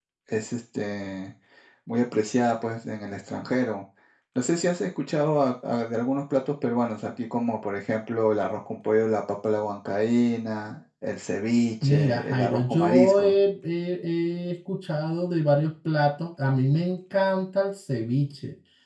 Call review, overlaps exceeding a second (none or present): present